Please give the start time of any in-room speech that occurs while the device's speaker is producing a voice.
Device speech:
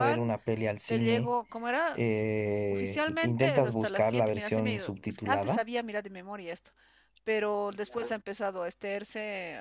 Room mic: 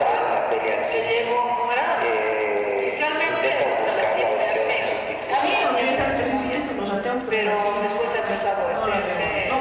5.4 s

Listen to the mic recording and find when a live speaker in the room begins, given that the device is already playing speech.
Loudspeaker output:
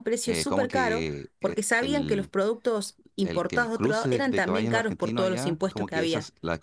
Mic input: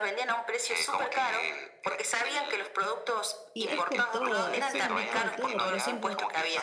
3.5 s

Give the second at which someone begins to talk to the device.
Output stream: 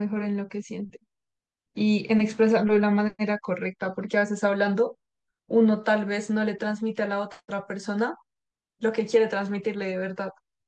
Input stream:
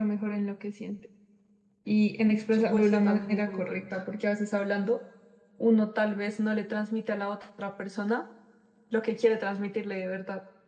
2.5 s

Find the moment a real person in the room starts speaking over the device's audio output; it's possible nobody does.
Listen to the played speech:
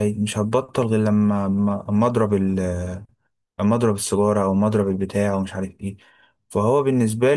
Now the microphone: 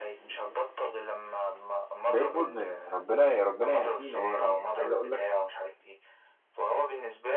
2.1 s

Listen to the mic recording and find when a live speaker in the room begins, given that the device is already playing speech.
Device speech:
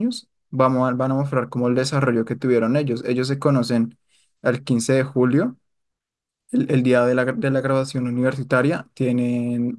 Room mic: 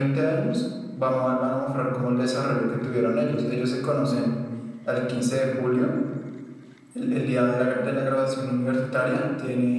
none

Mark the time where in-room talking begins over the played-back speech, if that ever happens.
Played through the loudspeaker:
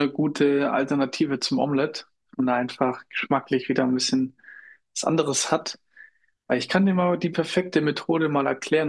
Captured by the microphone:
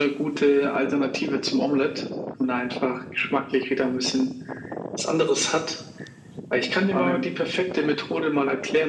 6.9 s

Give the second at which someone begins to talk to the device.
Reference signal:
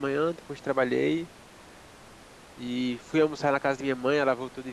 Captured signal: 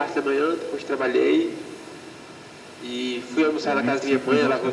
3.6 s

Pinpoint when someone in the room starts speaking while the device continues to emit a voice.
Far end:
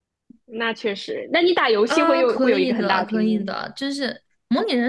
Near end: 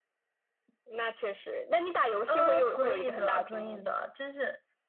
none

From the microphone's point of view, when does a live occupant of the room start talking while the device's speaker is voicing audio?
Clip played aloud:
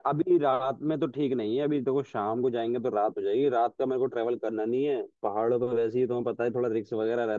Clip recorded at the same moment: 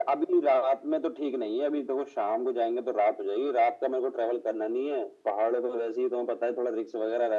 none

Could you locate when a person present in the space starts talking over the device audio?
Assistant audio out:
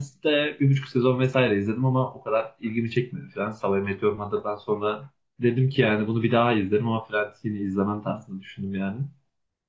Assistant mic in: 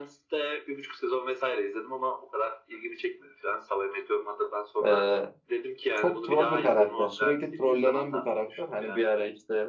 4.9 s

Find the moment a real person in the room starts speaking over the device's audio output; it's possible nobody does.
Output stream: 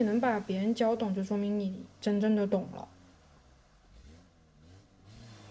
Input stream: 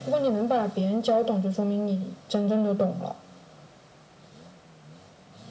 none

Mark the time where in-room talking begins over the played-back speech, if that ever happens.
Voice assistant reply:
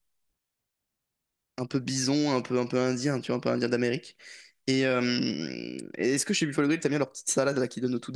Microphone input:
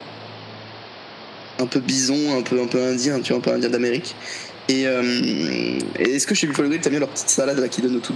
none

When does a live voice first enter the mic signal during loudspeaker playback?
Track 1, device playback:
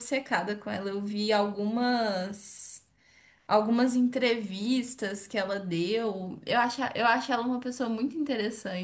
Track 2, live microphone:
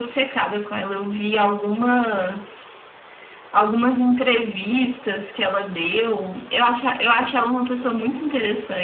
none

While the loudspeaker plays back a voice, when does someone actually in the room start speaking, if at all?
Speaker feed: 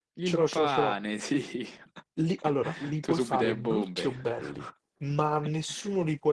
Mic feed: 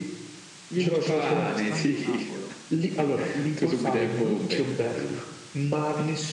0.7 s

